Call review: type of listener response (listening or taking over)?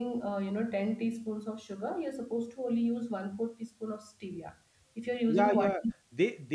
taking over